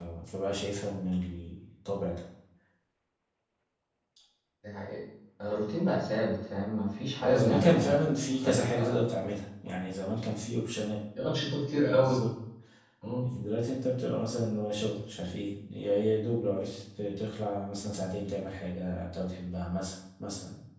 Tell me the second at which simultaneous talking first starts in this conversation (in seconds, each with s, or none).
7.2 s